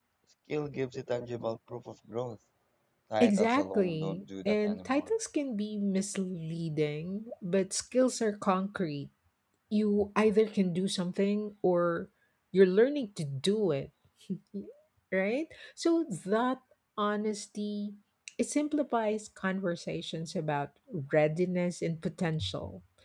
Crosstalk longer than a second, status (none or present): present